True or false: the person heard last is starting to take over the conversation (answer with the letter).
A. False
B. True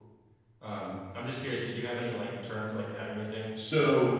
B